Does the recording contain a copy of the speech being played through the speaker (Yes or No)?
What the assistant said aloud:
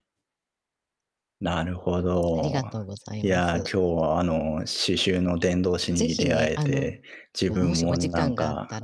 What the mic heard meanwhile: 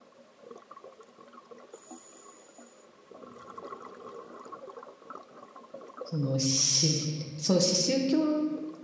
No